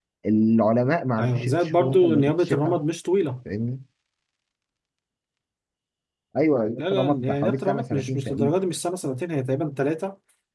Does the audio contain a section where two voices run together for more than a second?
Yes, from 1.2 s

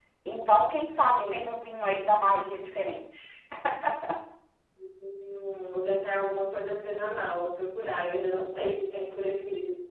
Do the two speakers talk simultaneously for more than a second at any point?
No

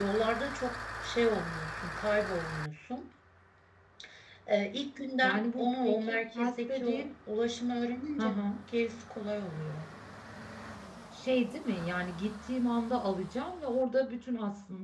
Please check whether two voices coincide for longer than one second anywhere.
Yes, from 5.2 s

